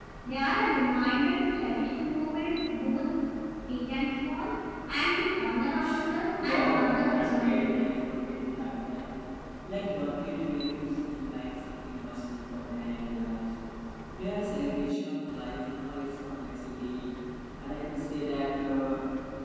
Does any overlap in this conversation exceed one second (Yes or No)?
Yes